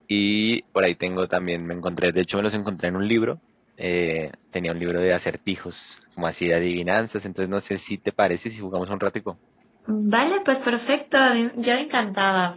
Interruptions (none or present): none